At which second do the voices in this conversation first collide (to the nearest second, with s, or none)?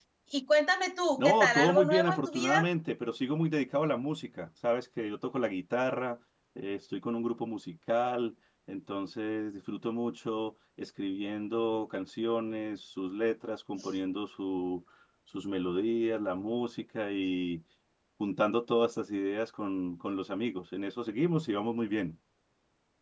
1 s